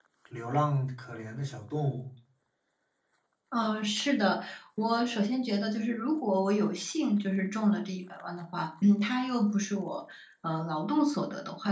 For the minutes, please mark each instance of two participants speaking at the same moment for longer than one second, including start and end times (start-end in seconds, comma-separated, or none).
none